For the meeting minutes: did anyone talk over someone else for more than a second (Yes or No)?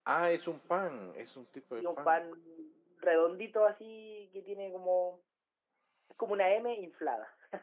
No